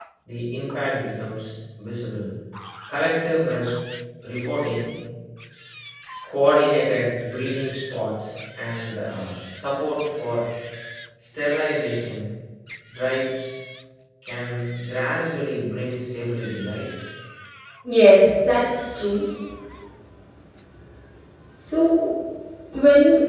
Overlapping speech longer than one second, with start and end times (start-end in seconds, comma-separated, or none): none